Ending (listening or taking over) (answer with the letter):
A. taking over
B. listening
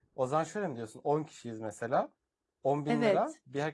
B